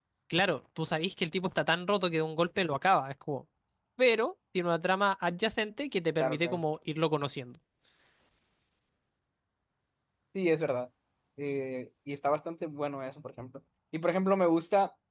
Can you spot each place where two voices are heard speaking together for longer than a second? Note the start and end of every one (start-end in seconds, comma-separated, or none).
none